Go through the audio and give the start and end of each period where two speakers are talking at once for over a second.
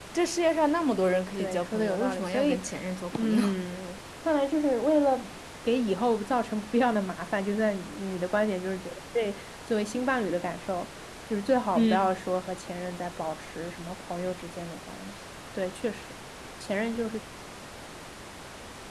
1.4-2.6

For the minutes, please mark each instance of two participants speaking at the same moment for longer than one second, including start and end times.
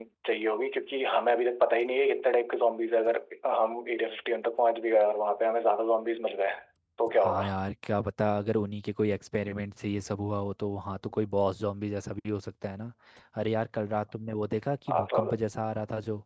none

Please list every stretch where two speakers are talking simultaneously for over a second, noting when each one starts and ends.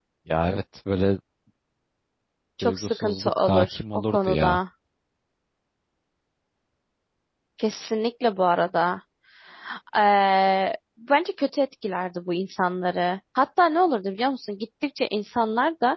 2.6-4.6

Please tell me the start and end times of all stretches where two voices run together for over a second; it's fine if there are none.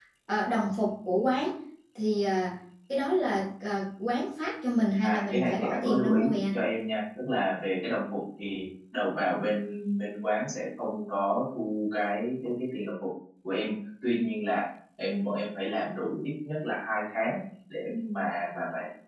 5.0-6.5

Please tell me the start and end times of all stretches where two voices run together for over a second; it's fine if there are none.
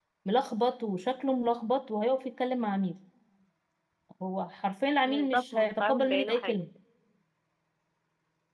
5.1-6.7

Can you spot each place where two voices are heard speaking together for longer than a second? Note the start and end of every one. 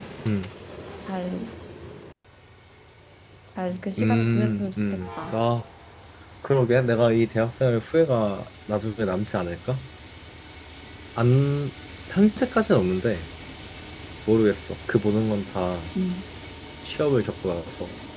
4.0-5.3

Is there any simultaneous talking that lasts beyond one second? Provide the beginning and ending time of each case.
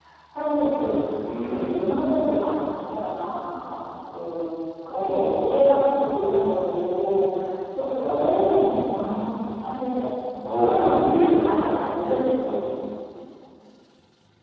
10.5-12.0

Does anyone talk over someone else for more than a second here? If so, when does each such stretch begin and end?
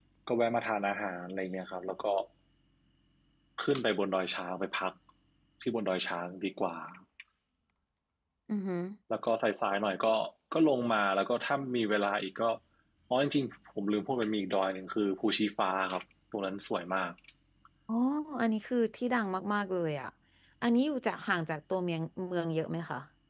none

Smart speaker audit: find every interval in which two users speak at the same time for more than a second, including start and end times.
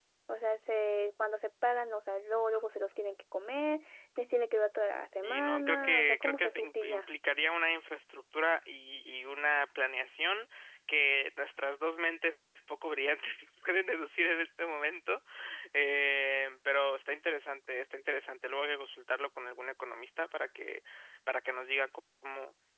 5.2-7.0

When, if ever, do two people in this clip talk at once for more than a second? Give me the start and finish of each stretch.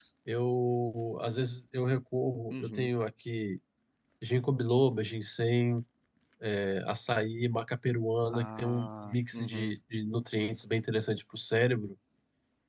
8.3-9.7

